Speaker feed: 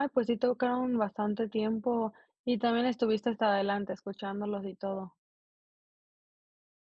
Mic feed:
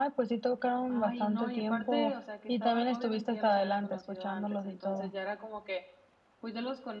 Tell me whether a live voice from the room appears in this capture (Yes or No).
Yes